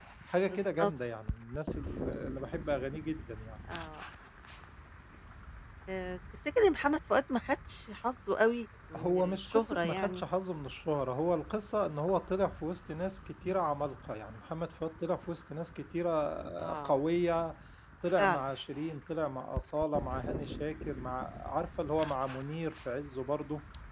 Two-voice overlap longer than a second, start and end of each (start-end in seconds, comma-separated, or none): 9.0-10.2